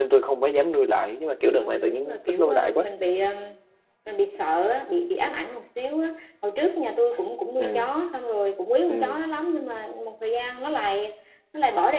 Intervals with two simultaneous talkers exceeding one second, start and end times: 1.6-2.9

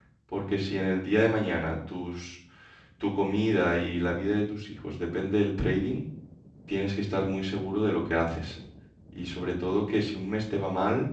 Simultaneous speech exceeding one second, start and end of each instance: none

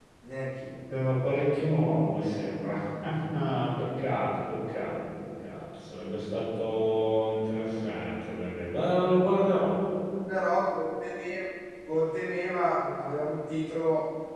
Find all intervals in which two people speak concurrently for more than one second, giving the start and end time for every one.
none

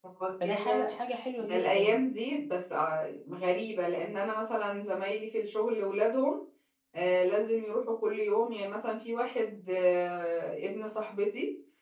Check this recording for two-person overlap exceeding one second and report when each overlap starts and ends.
none

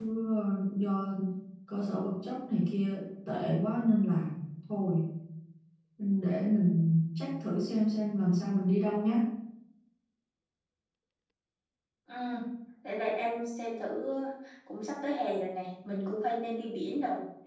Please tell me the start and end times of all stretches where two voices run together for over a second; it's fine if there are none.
none

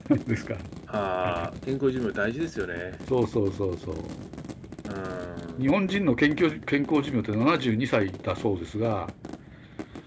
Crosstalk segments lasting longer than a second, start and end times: none

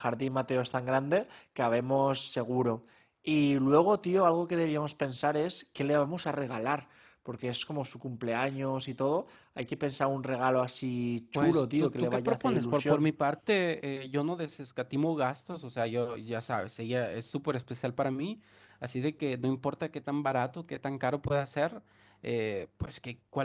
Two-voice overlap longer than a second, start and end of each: 11.3-13.1

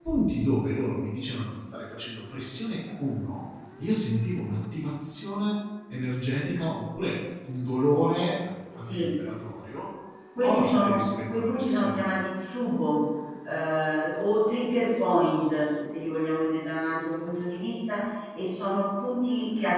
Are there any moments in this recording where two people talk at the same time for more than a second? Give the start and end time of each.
10.4-12.1

